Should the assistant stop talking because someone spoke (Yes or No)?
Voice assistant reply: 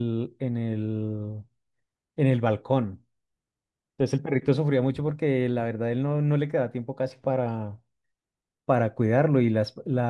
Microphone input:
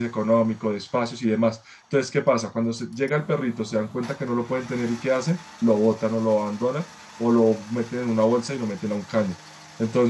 Yes